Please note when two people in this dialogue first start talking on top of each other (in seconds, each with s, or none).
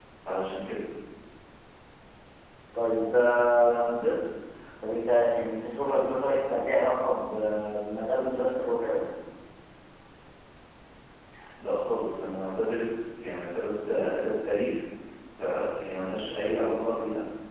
none